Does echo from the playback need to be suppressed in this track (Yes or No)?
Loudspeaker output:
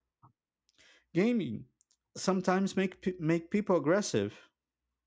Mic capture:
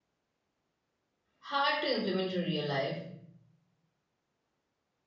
No